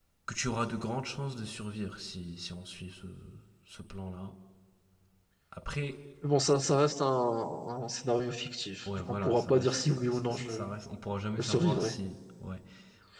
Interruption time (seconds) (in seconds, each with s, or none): 9.0 s